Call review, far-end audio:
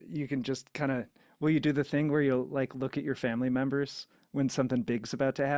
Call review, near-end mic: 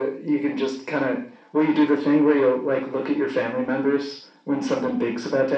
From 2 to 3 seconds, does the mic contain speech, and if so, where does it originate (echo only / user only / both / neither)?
echo only